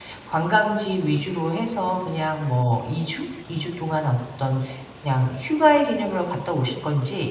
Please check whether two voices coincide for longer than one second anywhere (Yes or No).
No